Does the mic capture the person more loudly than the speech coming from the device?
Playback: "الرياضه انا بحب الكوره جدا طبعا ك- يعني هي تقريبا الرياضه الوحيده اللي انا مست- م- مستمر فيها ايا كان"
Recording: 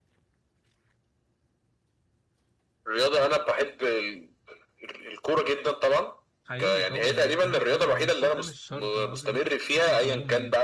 No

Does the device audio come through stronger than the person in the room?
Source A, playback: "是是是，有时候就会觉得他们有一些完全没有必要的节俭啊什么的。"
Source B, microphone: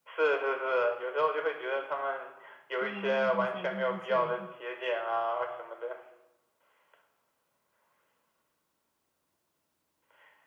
Yes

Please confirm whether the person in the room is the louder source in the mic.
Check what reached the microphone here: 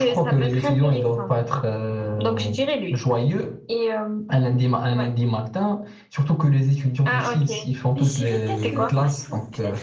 No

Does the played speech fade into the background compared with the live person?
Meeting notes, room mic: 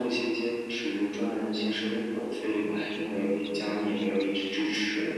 No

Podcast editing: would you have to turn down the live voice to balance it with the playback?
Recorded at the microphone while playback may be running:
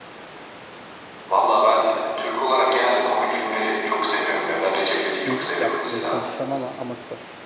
No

